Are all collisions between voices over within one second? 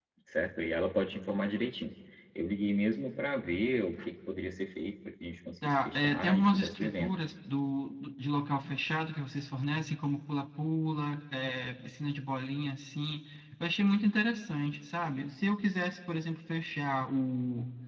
No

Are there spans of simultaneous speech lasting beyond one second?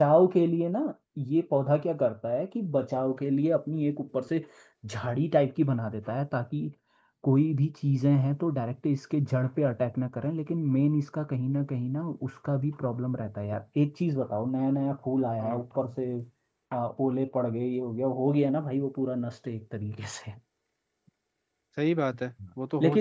No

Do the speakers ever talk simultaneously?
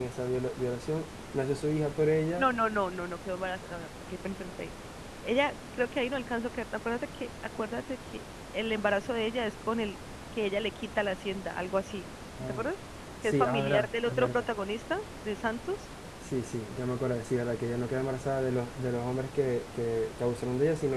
Yes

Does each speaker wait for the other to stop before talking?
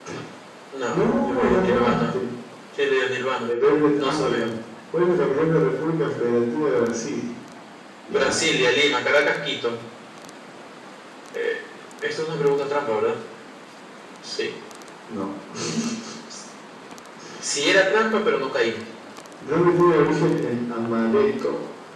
No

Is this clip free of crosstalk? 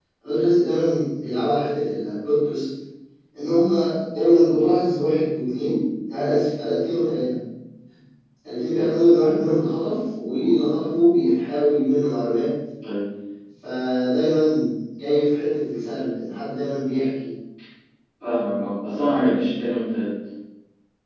Yes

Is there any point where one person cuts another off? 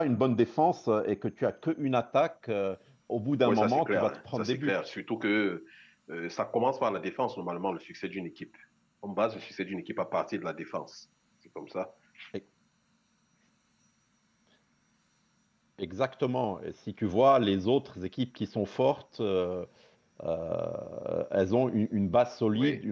Yes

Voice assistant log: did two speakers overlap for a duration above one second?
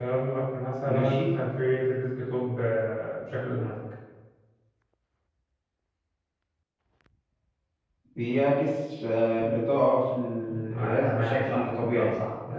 Yes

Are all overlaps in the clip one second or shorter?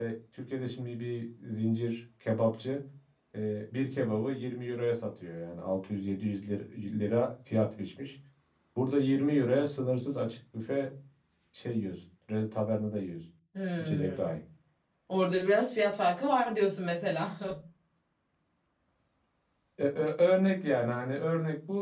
Yes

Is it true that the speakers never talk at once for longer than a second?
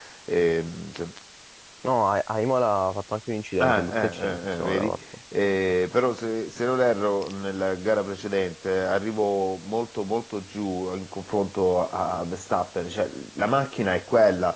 No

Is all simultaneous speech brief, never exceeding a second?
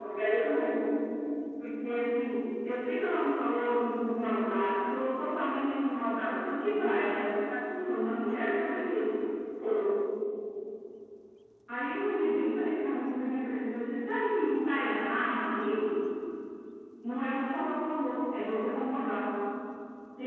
Yes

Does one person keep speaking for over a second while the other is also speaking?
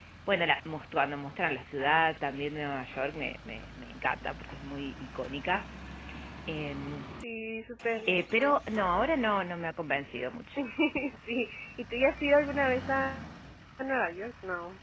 No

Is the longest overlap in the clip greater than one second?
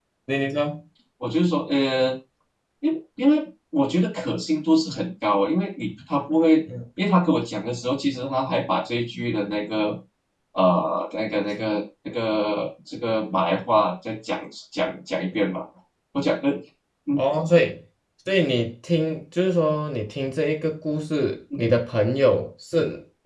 No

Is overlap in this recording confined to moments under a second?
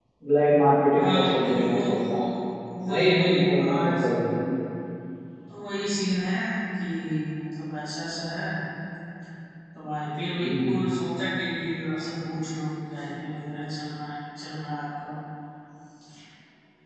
No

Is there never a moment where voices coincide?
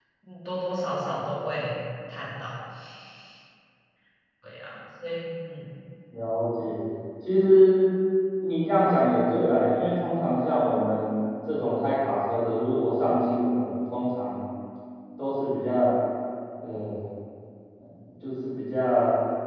Yes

